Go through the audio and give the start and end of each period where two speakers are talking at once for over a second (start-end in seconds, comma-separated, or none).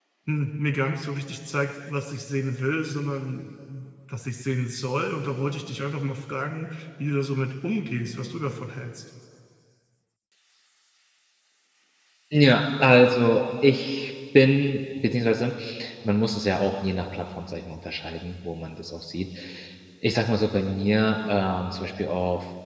none